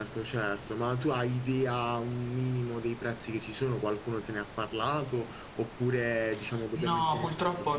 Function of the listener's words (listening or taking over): taking over